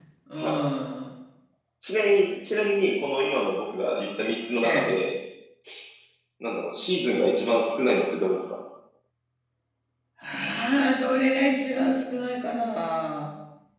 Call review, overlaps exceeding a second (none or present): none